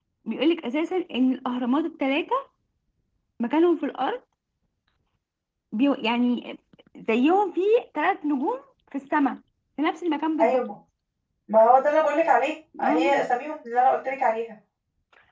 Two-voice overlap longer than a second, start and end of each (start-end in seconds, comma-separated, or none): none